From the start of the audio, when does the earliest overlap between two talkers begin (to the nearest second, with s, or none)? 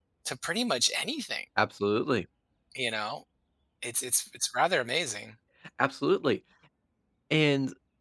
none